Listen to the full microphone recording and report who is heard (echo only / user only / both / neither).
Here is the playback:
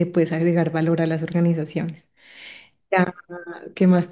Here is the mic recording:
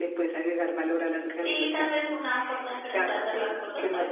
both